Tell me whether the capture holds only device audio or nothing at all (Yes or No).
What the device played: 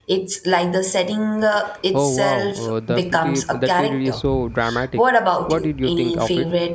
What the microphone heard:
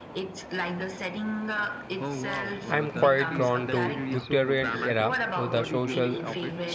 No